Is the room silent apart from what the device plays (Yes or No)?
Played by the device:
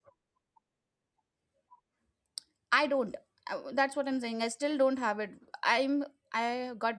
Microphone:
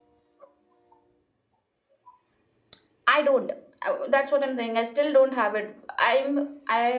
Yes